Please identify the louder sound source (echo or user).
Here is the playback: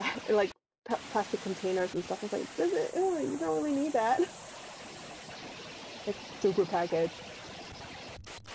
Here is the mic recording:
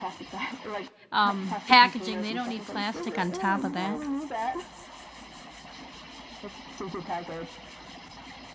user